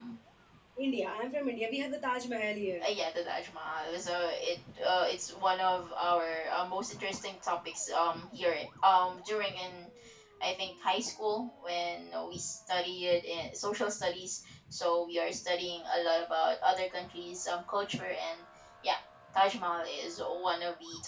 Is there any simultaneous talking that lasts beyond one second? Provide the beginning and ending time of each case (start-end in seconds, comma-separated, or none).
none